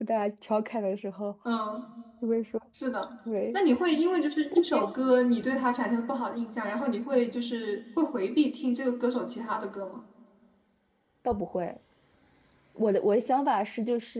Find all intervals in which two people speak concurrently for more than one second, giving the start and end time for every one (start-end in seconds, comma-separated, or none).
none